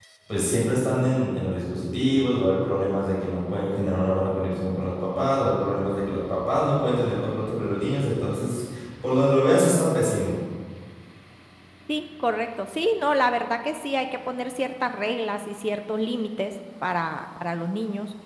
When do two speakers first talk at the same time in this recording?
none

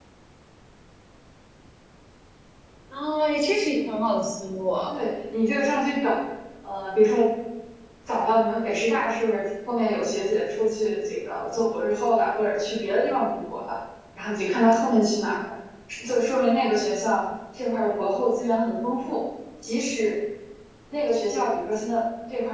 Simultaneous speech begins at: none

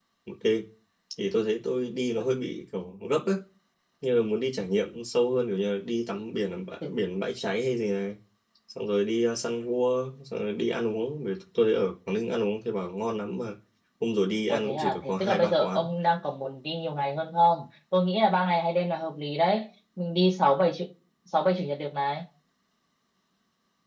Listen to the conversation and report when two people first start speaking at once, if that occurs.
14.5 s

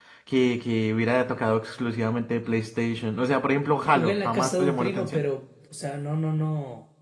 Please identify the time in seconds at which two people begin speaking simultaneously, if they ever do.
4.0 s

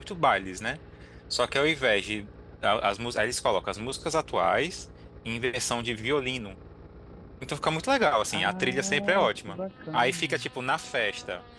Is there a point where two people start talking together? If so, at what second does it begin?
8.3 s

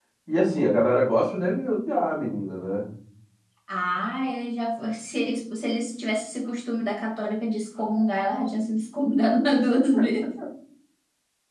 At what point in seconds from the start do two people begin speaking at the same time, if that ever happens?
none

